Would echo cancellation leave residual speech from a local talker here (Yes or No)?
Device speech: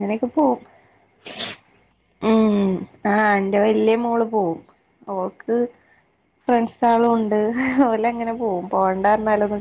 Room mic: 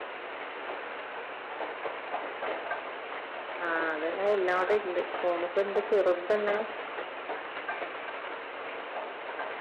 Yes